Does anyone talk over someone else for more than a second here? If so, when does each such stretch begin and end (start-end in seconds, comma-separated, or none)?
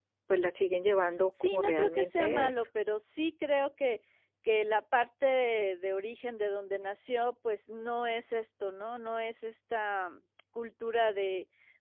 1.4-2.7